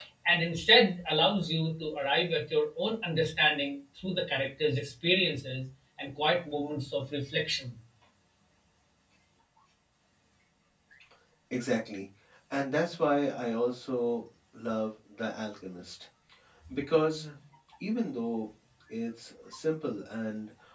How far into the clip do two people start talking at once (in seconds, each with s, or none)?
none